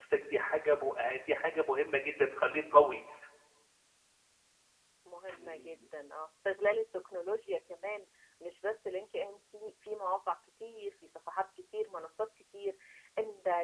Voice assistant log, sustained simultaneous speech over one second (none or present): none